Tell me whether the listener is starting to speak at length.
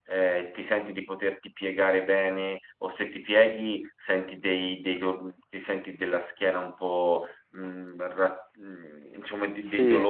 No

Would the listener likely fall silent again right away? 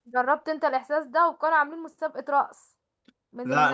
Yes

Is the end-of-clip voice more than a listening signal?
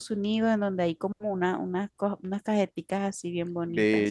Yes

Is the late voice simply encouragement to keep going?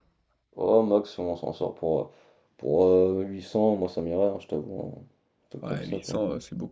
No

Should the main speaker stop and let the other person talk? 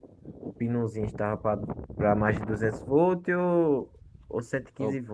No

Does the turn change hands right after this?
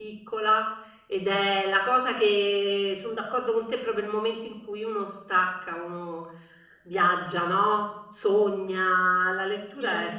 No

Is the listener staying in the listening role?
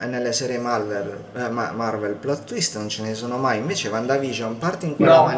Yes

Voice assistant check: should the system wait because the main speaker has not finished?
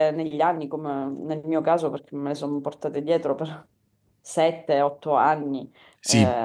Yes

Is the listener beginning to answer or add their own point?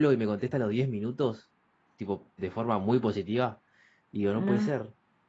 No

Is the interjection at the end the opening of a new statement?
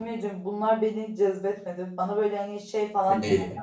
No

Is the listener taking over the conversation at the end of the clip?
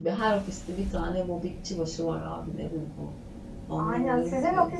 Yes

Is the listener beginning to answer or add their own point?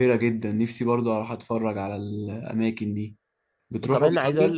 Yes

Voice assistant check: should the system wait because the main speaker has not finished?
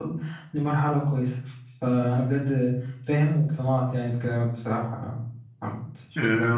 No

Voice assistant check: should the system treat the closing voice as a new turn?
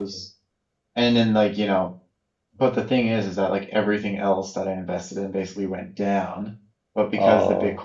No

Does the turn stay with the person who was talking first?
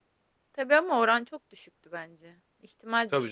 No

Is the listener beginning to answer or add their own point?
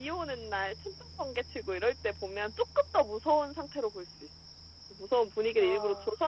No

